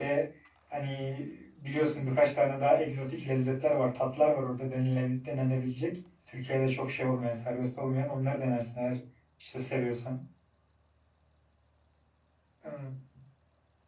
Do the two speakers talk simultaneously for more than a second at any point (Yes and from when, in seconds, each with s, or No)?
No